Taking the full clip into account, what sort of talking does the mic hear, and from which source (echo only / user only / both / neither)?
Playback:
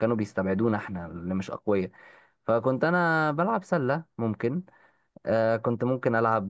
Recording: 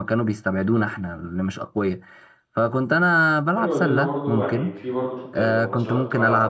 both